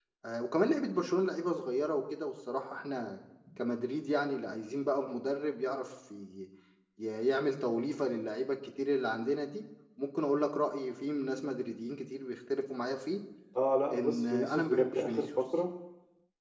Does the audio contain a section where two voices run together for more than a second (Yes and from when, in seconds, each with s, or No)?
Yes, from 13.9 s